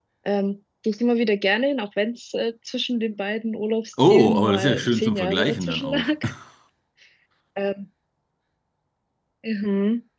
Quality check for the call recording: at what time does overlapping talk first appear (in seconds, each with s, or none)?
4.0 s